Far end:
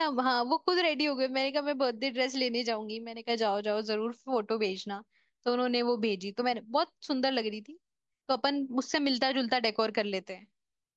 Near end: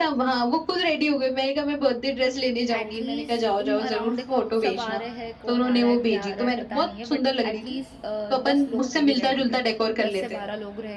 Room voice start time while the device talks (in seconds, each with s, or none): 2.8 s